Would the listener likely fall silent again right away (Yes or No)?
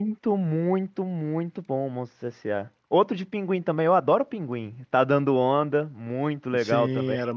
No